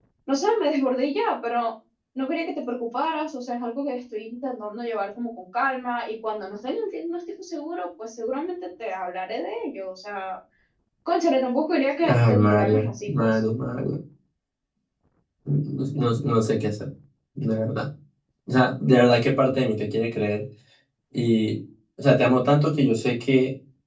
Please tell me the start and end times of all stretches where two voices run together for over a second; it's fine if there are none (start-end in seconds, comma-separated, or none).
12.1-13.3